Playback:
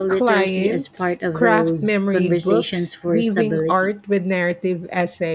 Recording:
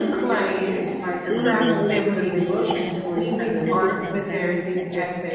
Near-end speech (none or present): present